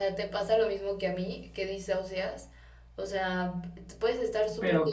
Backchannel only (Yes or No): Yes